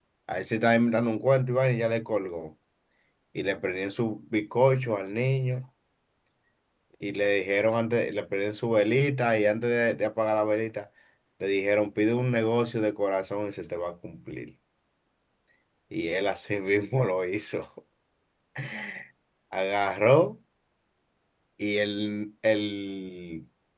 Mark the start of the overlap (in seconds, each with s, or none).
none